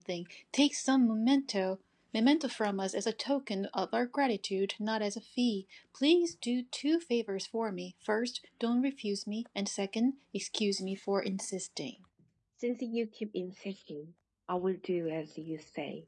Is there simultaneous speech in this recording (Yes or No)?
No